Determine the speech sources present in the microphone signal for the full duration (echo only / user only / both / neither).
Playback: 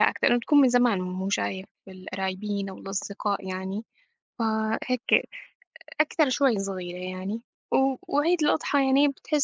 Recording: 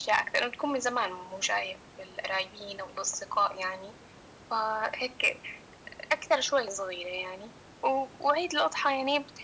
echo only